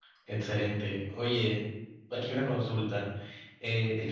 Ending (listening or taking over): listening